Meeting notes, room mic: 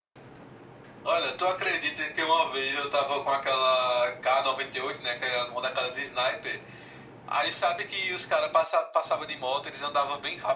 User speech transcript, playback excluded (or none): none